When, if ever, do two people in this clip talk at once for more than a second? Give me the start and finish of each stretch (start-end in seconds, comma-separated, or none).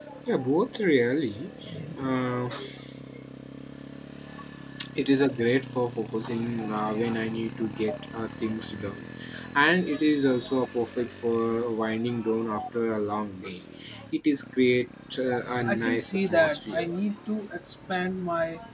15.6-16.9